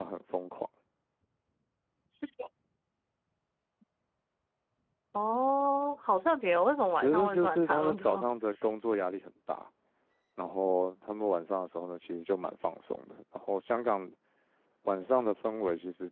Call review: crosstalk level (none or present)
present